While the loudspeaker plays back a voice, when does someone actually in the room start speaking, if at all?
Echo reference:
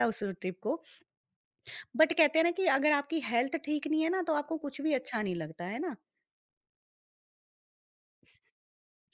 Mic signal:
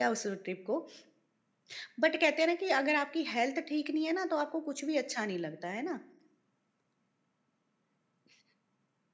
none

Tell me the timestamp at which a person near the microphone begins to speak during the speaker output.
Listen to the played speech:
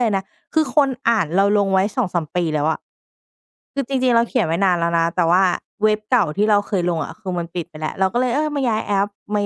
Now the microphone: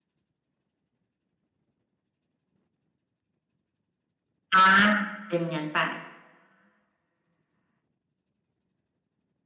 4.5 s

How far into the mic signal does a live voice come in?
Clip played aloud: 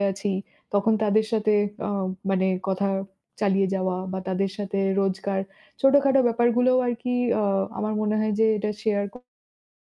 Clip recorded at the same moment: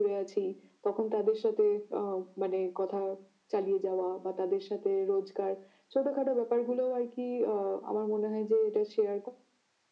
none

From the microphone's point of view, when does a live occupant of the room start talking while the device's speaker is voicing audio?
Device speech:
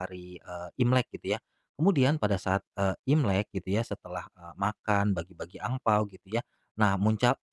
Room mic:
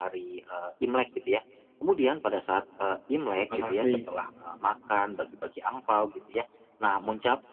3.3 s

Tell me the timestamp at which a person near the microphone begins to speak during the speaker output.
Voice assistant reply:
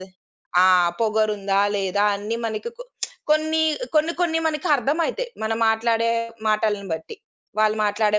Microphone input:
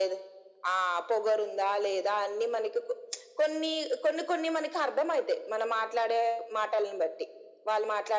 none

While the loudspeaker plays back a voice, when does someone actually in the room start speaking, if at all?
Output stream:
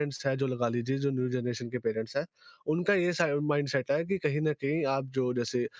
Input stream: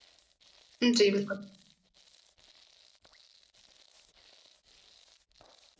0.8 s

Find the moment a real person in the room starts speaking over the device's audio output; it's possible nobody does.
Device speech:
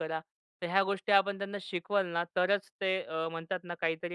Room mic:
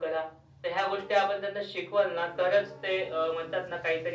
none

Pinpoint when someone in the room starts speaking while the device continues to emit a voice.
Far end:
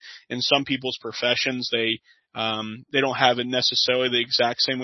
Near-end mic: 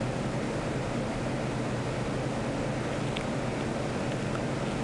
none

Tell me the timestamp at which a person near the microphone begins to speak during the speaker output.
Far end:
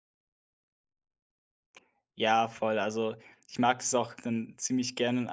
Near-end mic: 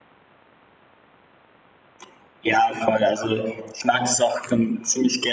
none

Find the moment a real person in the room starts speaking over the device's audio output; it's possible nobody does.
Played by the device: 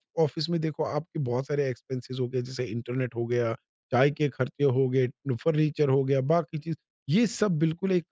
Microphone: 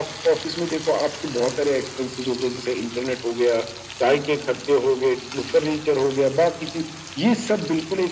none

